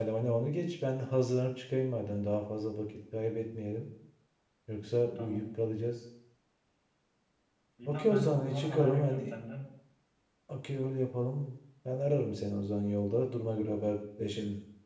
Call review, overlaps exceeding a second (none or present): present